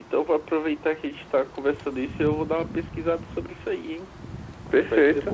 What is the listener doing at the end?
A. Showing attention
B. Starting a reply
B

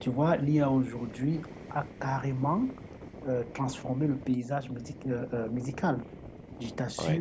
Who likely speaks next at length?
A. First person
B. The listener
A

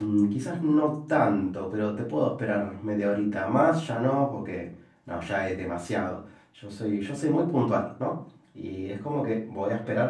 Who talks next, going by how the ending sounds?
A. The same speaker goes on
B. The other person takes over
A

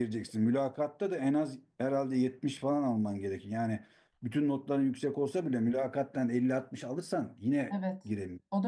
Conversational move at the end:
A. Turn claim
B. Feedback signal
A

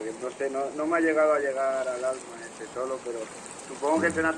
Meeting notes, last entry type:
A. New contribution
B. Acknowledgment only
B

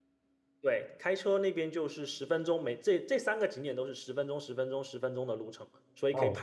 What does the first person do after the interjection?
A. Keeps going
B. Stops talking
B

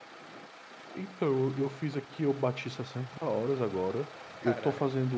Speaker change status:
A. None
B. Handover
A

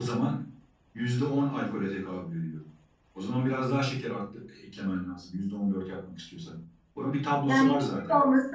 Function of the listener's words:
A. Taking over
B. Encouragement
A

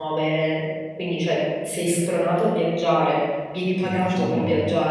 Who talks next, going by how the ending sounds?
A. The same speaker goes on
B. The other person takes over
B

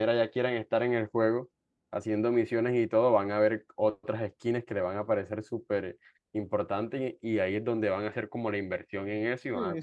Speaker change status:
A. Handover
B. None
A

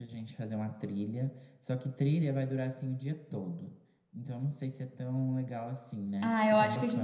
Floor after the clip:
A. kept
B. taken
B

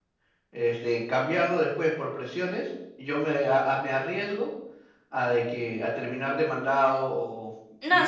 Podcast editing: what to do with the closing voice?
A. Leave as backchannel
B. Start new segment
B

